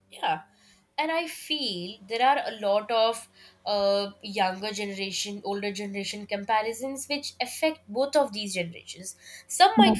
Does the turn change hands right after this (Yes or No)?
No